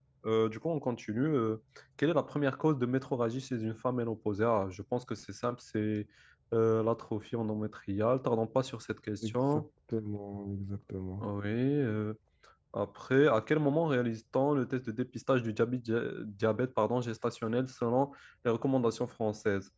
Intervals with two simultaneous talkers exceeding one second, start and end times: none

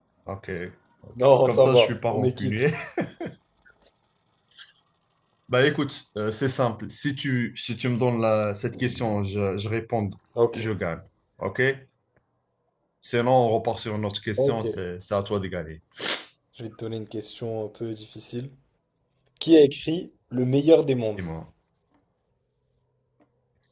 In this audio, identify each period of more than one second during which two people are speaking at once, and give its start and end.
1.4-2.7

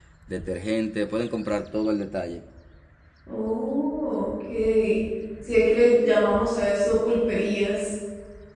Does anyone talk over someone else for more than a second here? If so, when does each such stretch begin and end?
none

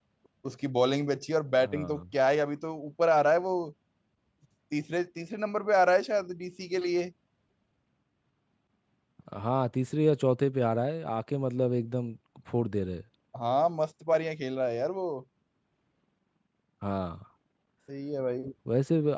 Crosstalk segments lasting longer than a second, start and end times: none

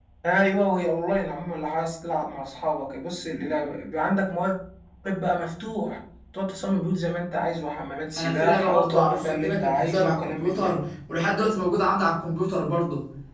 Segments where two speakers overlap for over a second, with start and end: 8.2-10.7

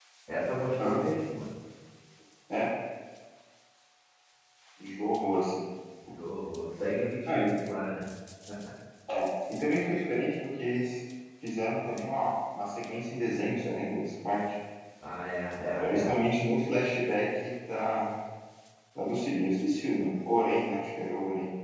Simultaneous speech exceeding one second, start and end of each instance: none

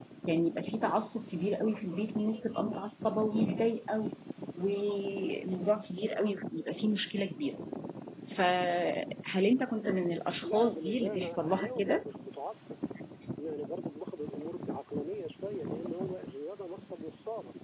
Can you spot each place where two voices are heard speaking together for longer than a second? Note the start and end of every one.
10.4-12.0

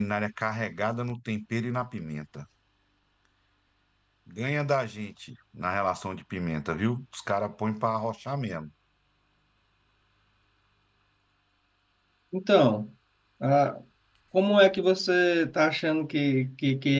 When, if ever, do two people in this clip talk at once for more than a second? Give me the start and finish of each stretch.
none

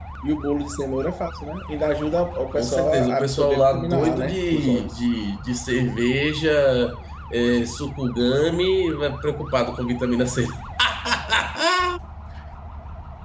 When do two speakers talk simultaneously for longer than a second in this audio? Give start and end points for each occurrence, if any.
2.5-4.9

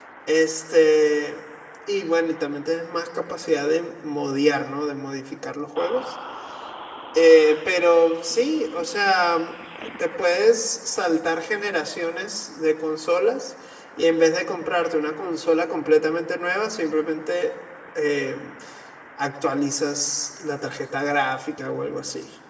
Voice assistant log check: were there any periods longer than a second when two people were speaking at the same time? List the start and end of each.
none

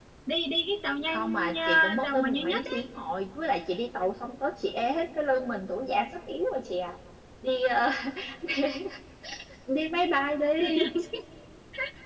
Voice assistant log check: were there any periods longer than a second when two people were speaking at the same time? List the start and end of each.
1.1-2.6

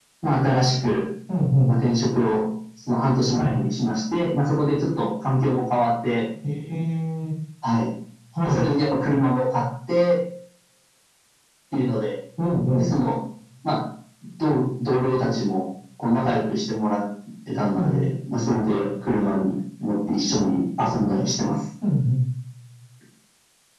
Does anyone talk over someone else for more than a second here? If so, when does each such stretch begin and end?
none

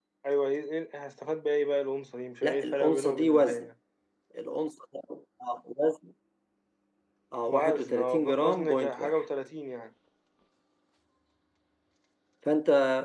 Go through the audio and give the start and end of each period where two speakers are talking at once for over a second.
2.4-3.6, 7.5-9.2

